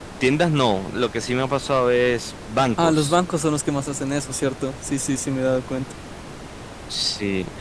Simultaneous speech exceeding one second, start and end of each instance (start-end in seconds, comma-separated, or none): none